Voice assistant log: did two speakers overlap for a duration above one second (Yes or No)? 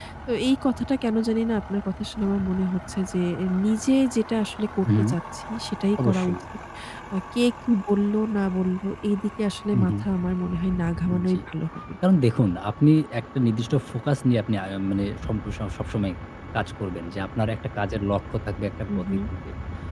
No